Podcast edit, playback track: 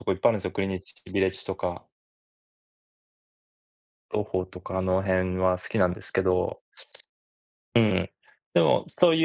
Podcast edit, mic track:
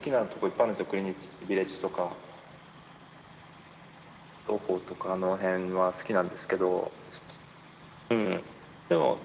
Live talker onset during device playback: none

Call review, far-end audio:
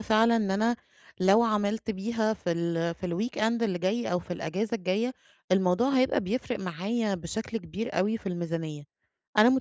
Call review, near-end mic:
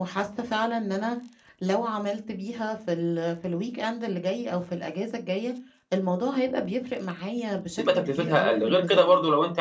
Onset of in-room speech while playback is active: 8 s

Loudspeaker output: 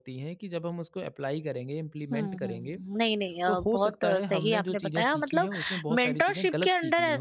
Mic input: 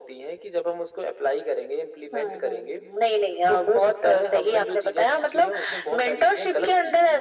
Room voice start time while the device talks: none

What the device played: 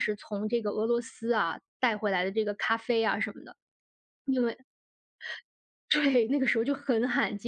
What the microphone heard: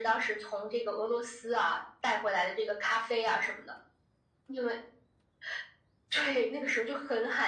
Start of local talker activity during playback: none

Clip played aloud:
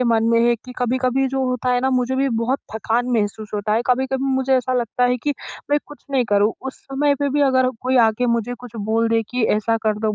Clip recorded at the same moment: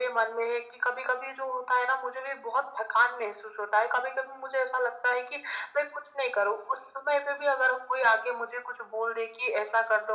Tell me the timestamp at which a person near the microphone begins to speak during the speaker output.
none

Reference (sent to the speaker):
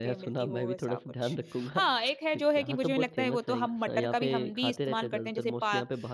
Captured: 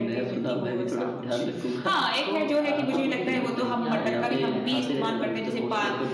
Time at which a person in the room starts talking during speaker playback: 2 s

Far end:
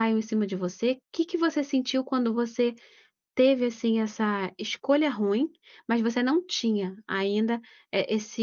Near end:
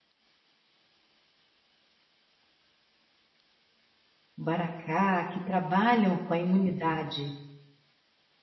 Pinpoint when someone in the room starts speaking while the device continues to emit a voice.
4 s

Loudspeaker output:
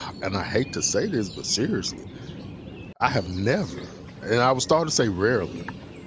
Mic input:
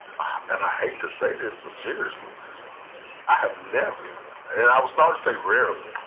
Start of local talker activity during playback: none

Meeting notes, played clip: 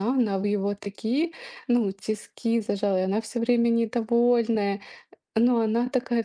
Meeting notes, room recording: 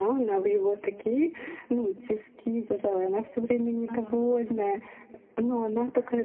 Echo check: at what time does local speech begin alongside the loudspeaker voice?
4 s

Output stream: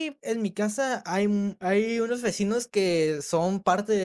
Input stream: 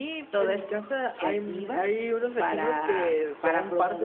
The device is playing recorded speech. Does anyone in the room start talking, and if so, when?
0 s

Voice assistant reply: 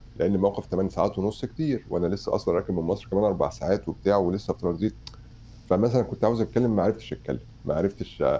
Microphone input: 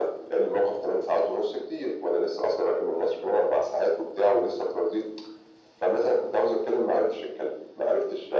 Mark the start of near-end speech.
none

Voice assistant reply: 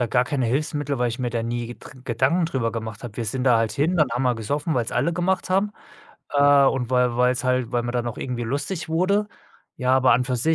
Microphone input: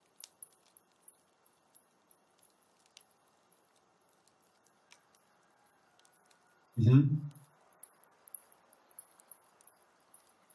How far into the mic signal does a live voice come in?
7 s

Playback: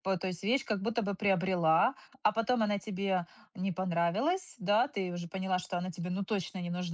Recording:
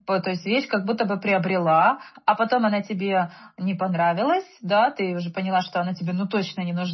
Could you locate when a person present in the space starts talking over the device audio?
none

